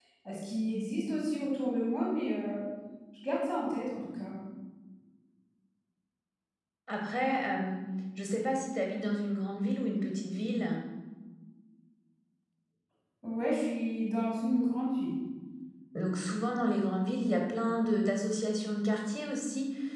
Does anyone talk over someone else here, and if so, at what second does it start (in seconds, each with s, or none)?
none